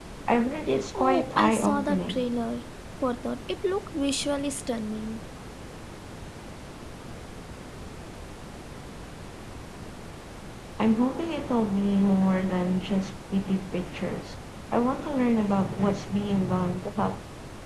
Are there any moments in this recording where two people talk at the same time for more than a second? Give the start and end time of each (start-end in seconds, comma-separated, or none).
1.0-2.2